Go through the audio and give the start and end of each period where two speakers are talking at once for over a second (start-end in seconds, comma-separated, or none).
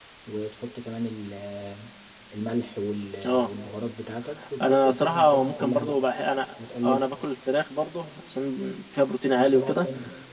4.6-6.0